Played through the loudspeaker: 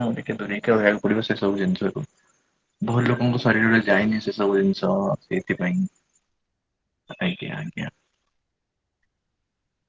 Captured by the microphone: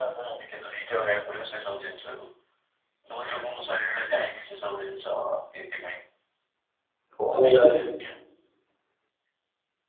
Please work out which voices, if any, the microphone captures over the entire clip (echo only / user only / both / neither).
both